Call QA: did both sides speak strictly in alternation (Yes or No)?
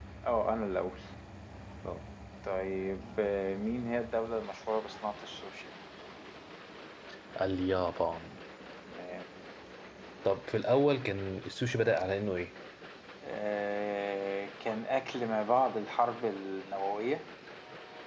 Yes